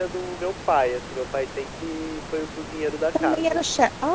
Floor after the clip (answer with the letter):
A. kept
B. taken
B